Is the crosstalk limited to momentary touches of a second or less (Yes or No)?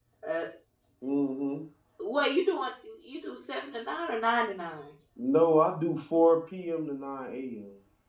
Yes